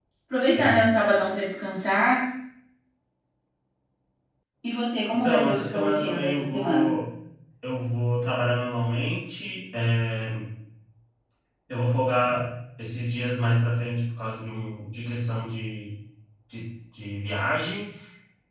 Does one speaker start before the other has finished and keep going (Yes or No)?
Yes